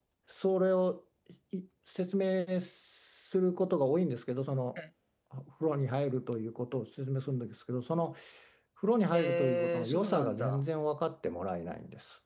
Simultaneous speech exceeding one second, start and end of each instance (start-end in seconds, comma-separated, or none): 9.1-10.6